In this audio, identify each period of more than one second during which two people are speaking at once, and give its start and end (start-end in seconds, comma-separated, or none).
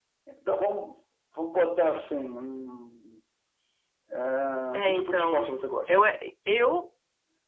4.7-5.9